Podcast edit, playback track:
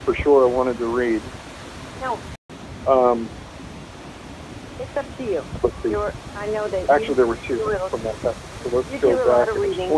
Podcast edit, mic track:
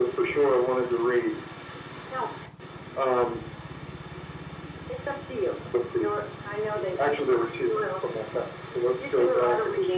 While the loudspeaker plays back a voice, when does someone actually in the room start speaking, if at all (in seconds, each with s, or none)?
none